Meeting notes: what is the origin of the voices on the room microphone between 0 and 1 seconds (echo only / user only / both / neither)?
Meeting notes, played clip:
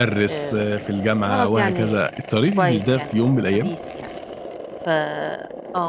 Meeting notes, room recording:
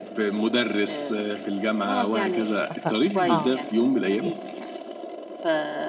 echo only